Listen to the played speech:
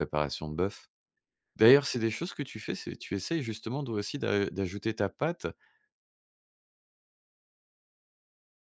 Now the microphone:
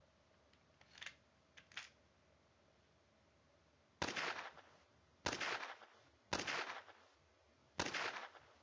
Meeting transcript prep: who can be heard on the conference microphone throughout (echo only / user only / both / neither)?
neither